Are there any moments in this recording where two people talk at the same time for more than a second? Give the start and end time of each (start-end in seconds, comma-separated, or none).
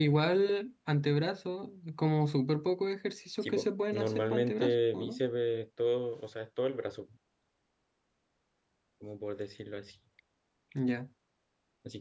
3.9-5.2